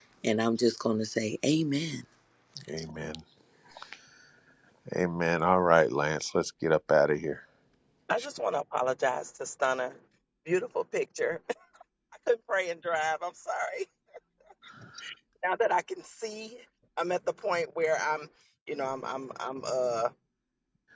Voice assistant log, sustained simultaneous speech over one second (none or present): none